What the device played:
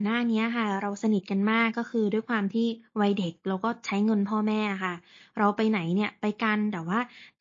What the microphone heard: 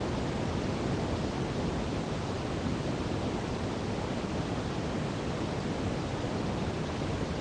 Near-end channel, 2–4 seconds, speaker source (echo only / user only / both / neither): neither